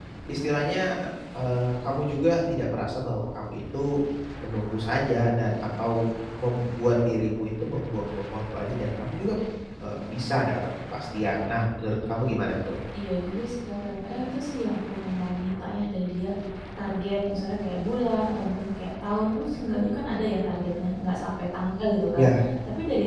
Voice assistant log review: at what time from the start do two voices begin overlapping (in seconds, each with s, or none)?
none